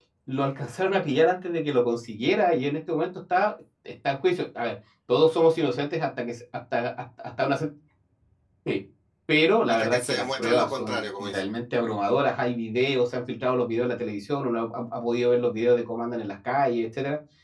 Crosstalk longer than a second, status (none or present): present